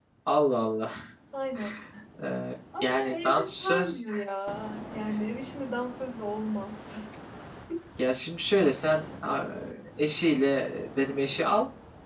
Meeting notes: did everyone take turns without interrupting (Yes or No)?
No